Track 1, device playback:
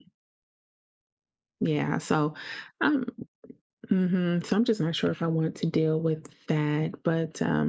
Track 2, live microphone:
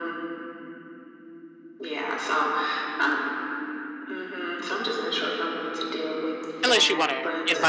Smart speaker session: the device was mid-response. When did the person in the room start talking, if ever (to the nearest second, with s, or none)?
7 s